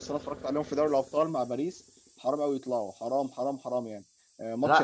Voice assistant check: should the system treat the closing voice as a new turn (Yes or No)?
No